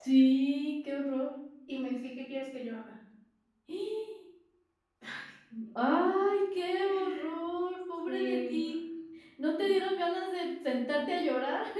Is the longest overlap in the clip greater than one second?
No

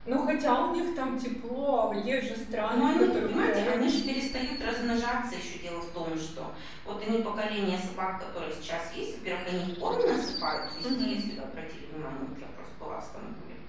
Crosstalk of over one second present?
Yes, from 2.7 s

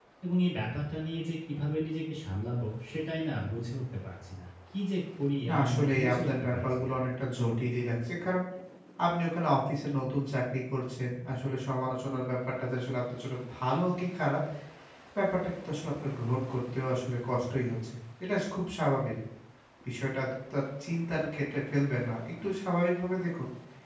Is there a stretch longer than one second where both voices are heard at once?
Yes, from 5.5 s

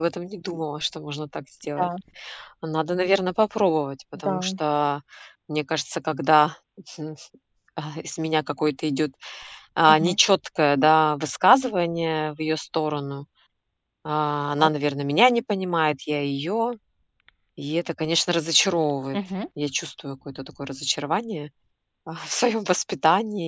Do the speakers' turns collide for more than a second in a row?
No

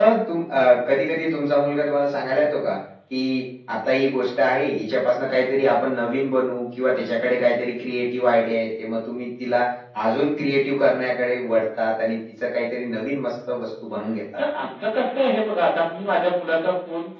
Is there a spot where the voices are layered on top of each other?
No

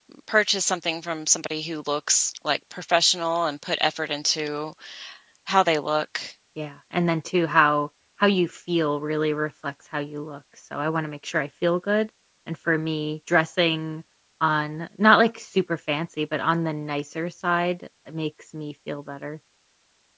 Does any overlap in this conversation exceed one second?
No

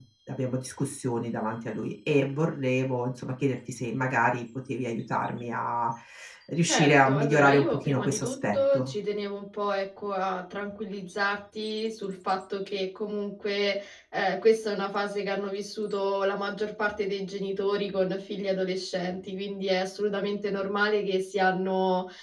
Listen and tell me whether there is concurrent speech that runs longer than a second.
Yes, from 6.7 s

